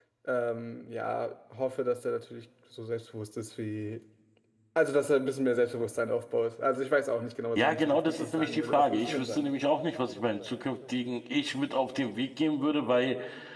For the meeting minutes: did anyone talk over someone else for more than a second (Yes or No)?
Yes